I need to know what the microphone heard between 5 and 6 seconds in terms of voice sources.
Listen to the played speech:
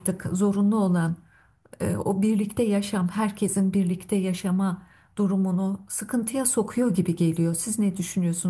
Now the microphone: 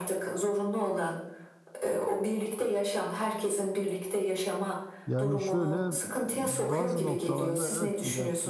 both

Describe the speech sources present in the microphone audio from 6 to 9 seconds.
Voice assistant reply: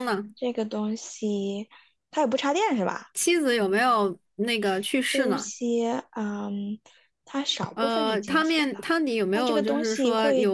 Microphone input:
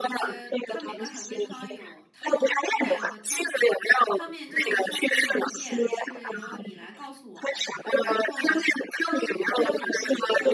both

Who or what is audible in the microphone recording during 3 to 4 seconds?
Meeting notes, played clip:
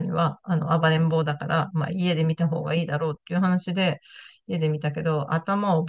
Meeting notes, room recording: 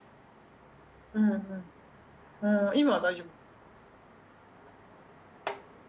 user only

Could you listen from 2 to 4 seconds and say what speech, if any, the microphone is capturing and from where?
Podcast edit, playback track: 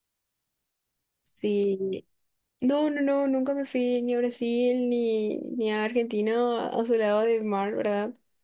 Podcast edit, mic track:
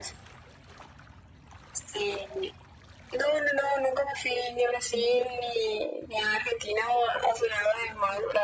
echo only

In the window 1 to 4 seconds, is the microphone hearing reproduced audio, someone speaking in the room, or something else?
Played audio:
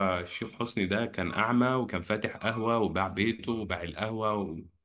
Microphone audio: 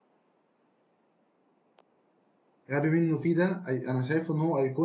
user only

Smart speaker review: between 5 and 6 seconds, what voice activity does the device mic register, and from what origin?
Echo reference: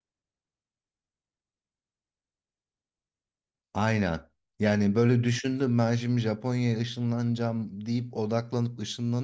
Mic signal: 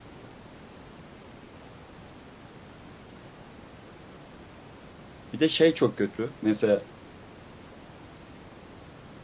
user only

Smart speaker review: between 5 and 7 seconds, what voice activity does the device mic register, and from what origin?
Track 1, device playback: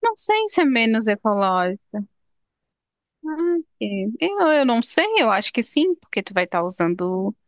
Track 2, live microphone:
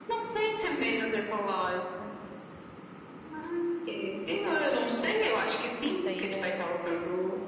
both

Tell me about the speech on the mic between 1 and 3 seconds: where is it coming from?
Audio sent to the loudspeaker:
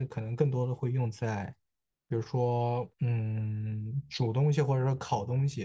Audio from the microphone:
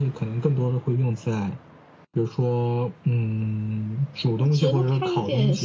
echo only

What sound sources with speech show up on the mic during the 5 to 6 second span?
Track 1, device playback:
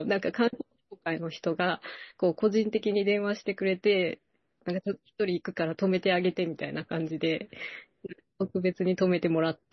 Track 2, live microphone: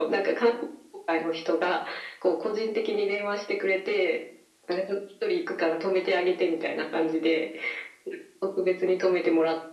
echo only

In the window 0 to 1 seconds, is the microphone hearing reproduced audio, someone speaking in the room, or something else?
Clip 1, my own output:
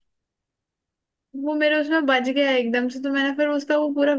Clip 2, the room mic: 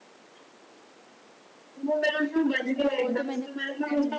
neither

